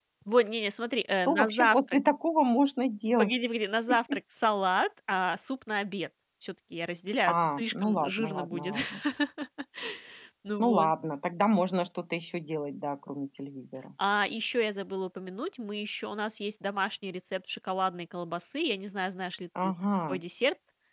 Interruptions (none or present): present